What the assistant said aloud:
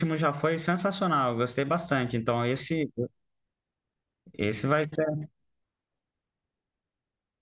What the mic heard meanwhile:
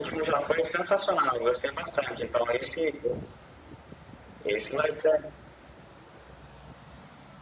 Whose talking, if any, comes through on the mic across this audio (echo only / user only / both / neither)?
echo only